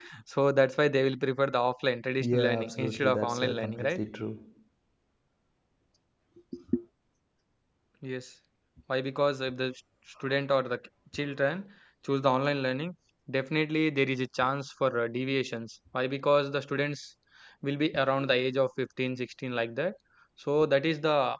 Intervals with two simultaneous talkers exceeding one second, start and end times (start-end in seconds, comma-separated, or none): 2.2-4.0